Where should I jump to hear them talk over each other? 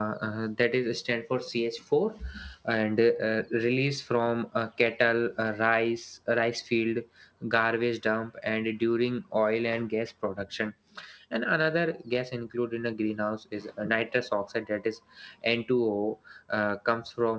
none

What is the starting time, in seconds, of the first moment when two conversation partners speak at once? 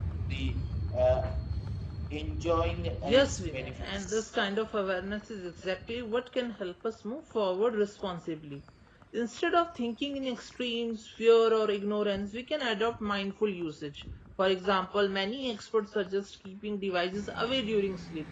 3 s

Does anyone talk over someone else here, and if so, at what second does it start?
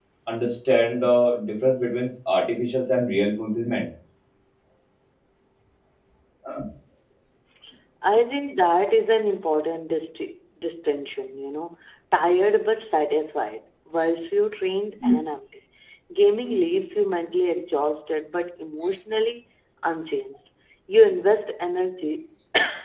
none

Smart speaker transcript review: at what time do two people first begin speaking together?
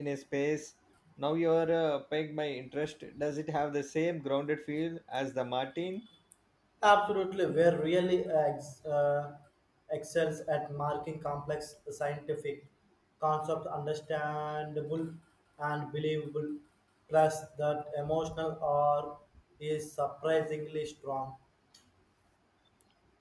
none

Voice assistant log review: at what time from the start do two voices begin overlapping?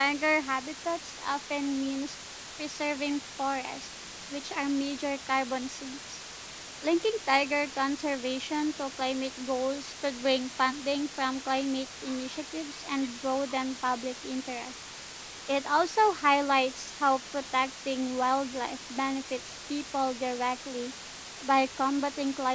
none

